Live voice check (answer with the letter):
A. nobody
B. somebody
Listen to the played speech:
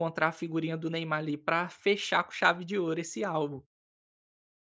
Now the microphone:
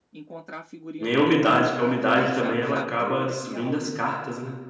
B